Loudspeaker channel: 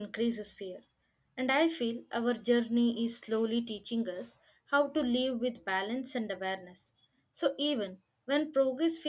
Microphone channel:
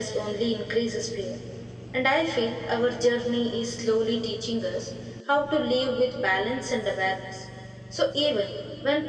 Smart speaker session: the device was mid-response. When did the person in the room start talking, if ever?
none

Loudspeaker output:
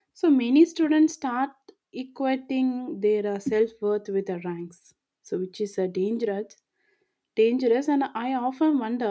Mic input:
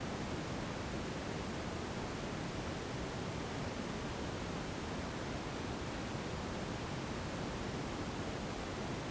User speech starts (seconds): none

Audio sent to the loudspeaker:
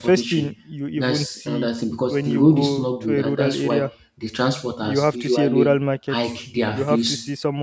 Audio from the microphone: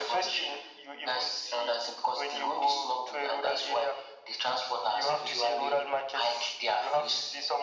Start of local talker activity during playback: none

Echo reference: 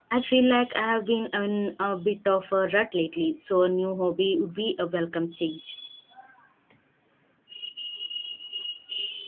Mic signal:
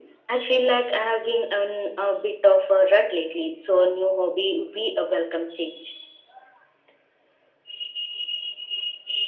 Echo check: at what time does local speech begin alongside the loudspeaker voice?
none

